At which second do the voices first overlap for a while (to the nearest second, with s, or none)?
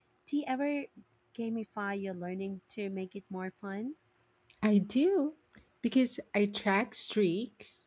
none